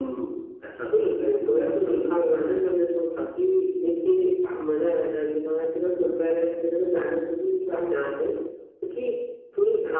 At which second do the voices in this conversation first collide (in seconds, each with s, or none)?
0.9 s